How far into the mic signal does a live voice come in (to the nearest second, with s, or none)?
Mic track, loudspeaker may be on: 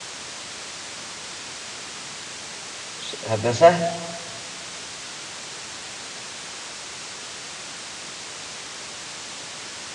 3 s